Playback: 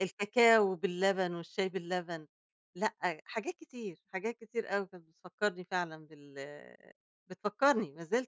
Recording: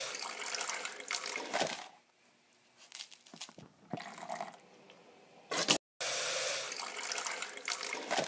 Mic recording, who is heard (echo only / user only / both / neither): neither